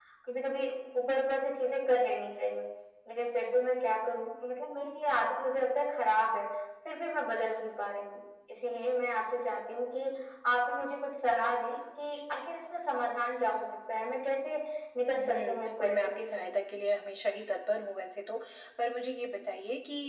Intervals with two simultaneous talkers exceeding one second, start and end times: 15.1-16.5

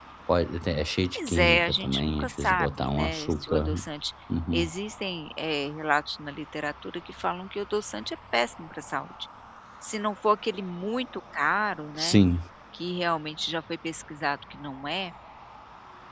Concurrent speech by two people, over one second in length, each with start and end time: 1.1-3.7

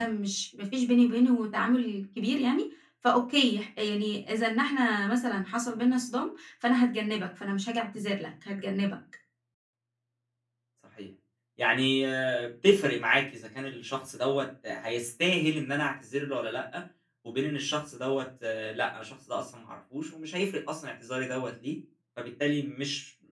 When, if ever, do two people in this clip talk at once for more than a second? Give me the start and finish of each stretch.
none

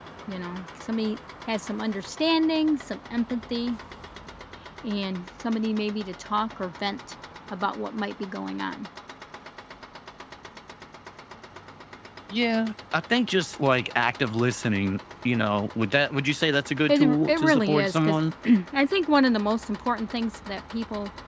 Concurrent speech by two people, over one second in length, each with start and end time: 16.9-18.2

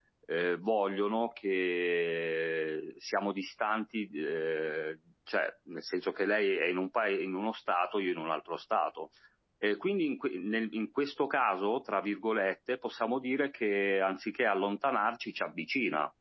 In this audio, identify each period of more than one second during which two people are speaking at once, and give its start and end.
none

